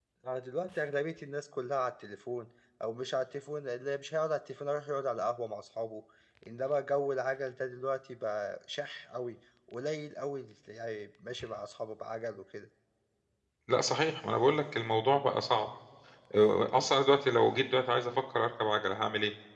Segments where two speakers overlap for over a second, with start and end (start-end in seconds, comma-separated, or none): none